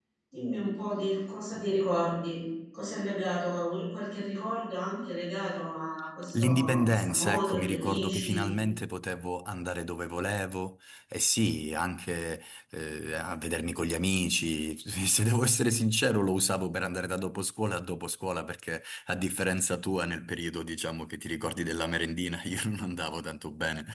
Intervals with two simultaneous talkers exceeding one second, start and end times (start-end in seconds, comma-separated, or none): 6.4-8.5